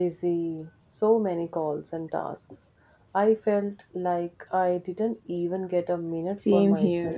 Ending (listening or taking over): taking over